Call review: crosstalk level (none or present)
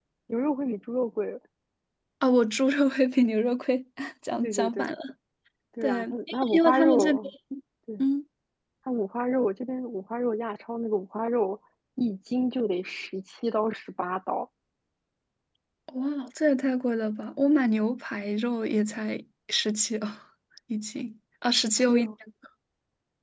present